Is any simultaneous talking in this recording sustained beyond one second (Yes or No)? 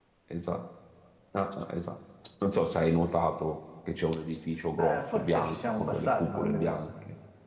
Yes